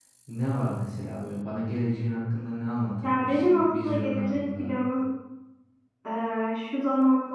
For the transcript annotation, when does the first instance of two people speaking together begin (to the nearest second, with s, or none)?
3 s